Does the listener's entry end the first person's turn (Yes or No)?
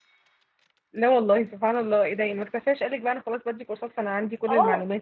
Yes